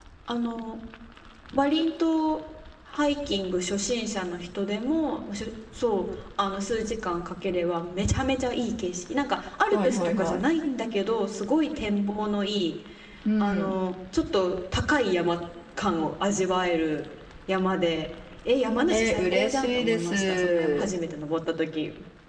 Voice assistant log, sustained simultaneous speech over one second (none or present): present